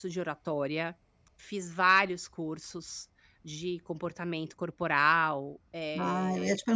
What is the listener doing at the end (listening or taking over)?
taking over